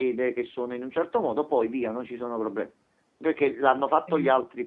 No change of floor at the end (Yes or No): Yes